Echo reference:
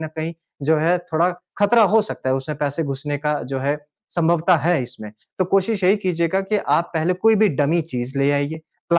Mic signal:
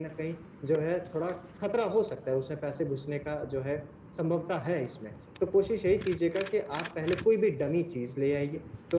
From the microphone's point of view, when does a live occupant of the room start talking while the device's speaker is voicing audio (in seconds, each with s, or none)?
none